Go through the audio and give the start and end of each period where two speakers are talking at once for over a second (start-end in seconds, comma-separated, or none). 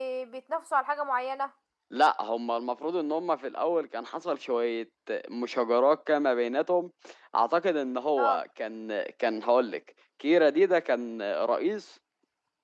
none